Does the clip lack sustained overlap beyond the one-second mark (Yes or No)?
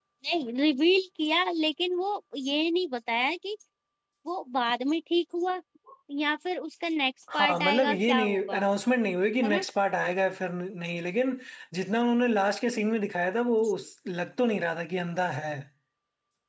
No